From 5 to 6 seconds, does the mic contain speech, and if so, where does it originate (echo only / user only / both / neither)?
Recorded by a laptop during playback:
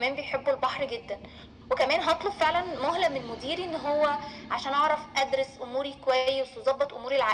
echo only